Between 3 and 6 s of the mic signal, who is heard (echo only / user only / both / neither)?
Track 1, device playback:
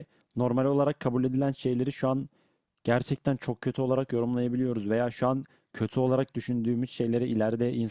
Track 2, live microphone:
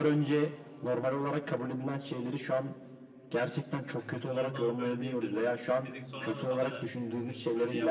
both